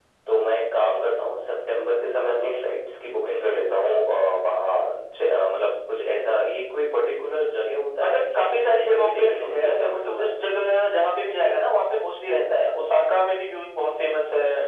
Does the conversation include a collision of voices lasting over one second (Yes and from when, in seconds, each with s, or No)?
Yes, from 8.0 s